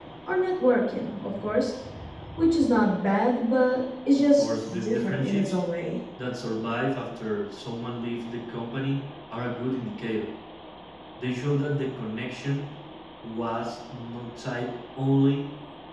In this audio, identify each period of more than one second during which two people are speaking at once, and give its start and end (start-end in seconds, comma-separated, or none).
4.3-5.6